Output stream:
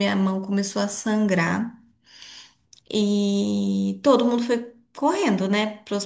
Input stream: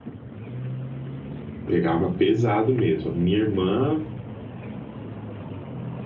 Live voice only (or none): pegava pesado mesmo. Minha irmã